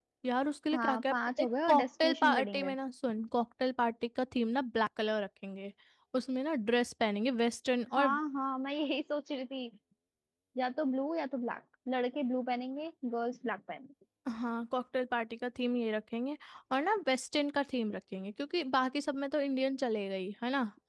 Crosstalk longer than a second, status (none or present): present